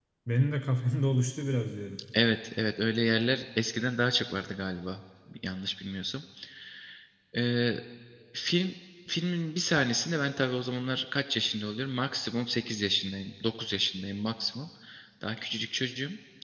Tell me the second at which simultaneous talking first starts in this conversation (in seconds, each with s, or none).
none